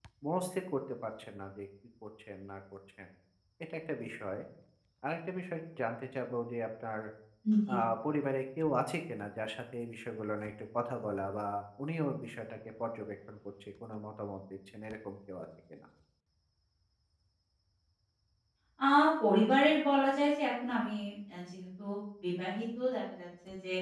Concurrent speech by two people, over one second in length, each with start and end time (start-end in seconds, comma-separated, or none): none